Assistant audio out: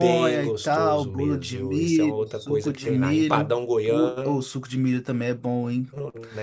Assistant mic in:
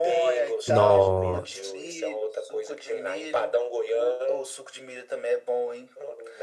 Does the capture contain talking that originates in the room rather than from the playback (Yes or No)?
Yes